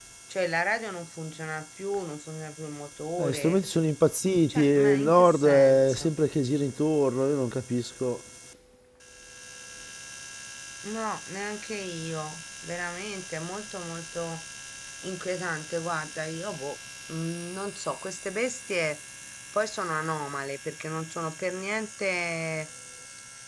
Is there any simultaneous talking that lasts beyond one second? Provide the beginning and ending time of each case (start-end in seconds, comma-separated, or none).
4.5-6.1